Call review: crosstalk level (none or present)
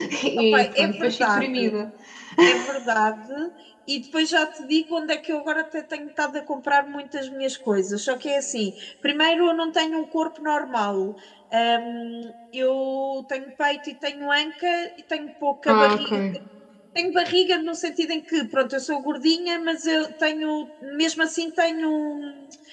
present